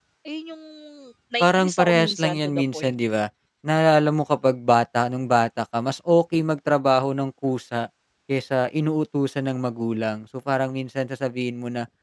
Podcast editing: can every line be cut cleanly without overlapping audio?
No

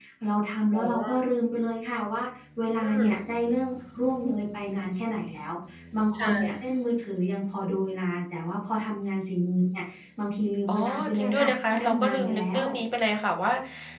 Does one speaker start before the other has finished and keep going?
Yes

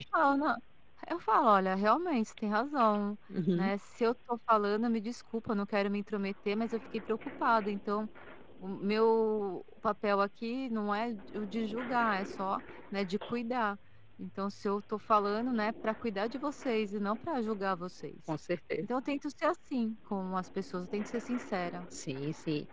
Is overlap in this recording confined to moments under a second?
Yes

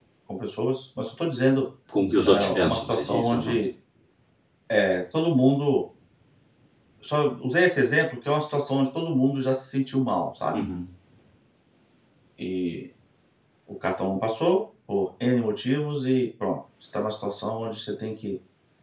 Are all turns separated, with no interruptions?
No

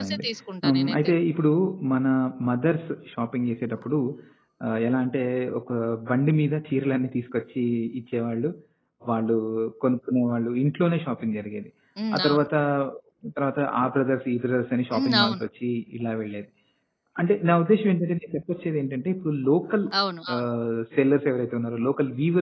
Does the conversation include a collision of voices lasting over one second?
No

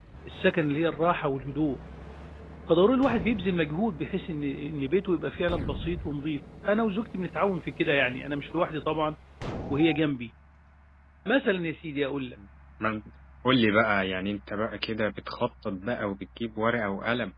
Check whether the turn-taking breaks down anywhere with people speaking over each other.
No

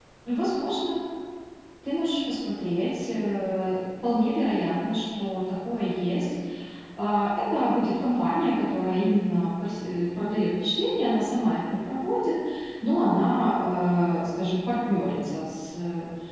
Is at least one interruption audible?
No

